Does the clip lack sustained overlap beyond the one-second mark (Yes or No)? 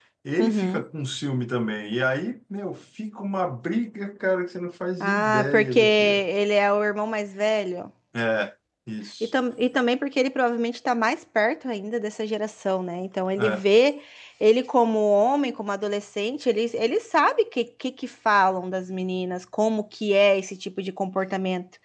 No